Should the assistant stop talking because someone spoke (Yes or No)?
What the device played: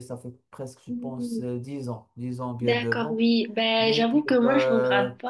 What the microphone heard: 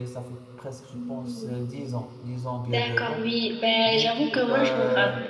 No